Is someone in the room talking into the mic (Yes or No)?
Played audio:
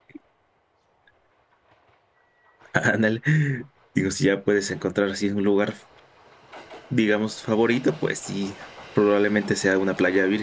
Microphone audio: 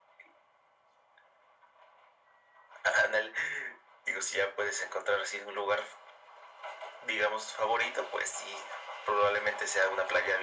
No